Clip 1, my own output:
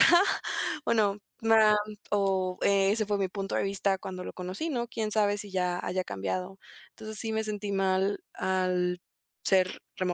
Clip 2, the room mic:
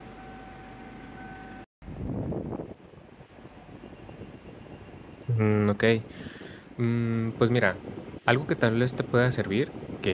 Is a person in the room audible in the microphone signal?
Yes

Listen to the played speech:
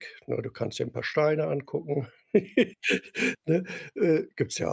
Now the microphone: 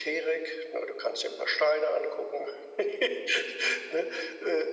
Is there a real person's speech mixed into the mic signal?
No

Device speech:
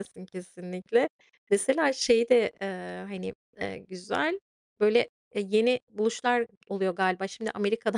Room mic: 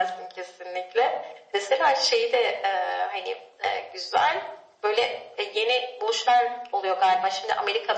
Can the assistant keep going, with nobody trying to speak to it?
Yes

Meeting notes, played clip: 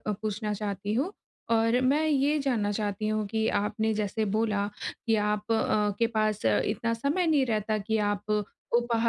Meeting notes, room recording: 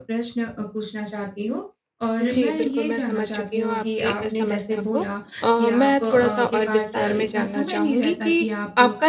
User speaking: Yes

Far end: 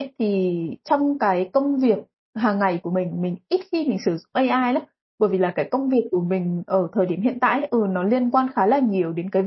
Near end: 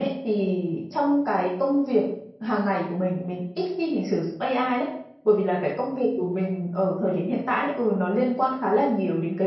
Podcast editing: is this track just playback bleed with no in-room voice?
Yes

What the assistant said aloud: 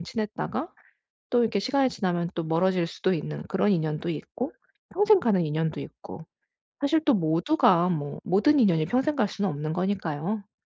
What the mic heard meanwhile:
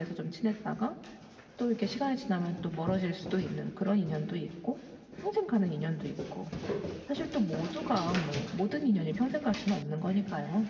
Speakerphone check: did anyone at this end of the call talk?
No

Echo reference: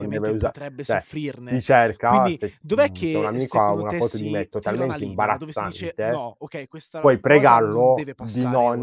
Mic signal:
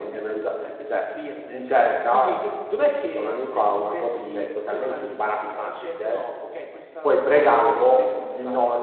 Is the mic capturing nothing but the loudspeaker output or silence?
Yes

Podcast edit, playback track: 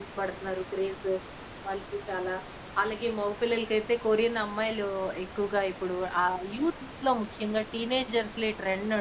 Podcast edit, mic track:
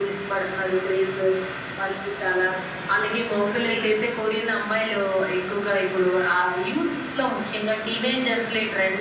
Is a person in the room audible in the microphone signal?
No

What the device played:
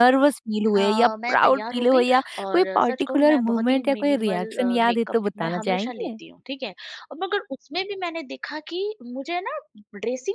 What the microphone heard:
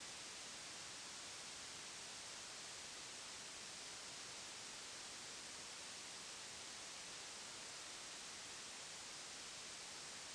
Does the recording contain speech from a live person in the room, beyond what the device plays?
No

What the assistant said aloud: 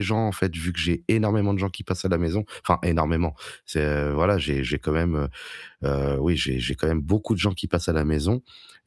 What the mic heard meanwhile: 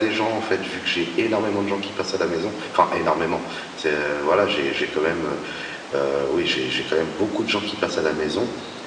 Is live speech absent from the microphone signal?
Yes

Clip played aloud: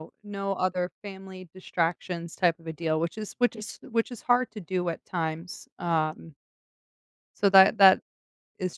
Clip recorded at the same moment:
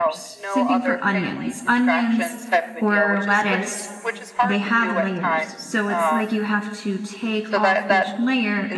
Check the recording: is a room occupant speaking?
Yes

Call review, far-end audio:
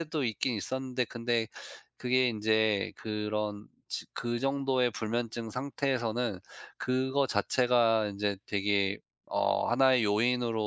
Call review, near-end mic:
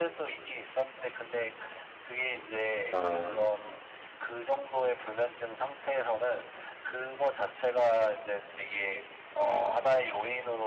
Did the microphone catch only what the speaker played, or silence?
No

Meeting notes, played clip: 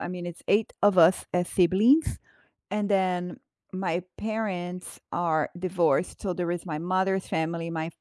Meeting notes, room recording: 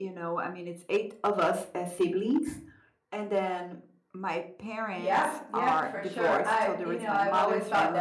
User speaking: Yes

